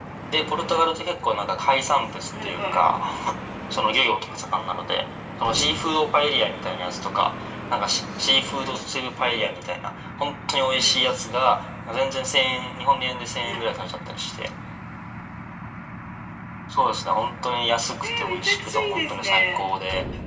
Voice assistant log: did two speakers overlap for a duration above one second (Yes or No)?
Yes